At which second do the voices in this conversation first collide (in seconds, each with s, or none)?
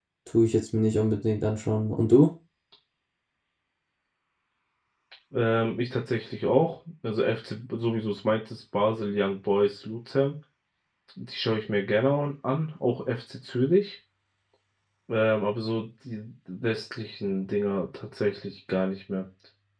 none